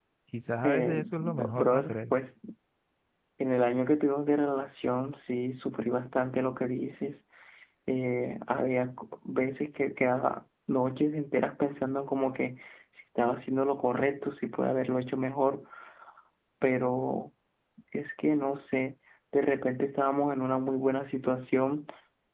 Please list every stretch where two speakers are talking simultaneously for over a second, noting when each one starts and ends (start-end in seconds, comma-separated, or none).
0.6-2.1